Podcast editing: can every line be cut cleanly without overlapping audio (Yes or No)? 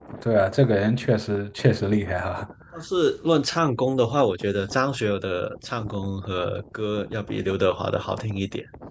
Yes